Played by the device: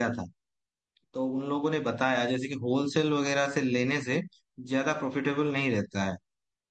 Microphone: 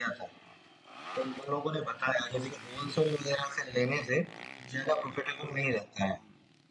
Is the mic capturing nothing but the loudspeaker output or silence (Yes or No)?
Yes